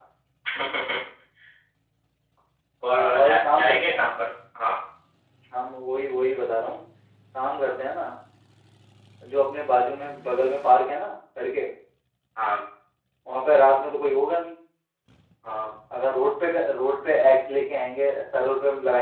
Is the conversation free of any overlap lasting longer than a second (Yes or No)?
No